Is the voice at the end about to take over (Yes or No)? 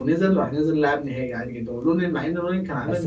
Yes